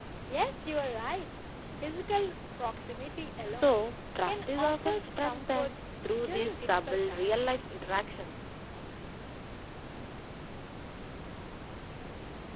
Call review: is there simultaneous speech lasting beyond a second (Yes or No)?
Yes